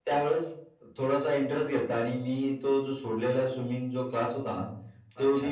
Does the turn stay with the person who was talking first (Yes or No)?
Yes